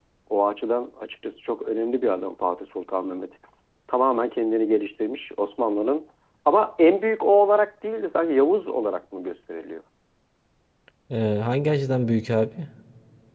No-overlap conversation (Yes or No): Yes